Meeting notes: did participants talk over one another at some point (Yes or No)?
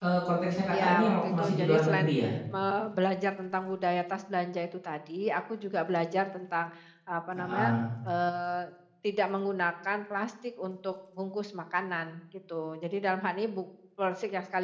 Yes